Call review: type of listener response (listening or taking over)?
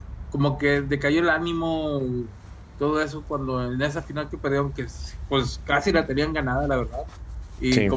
listening